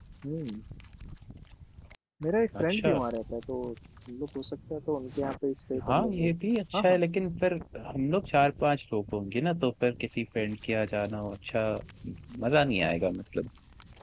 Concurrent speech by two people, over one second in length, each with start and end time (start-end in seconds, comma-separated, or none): none